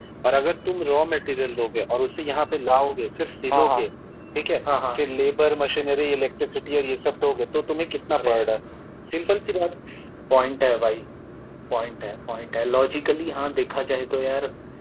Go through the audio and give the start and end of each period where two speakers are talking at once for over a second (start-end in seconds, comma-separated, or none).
none